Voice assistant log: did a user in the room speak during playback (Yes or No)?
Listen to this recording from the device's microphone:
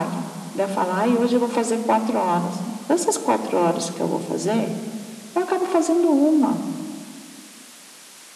No